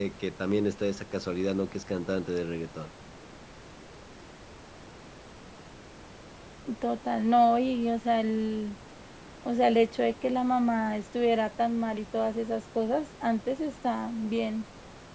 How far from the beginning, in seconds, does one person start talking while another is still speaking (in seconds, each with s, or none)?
none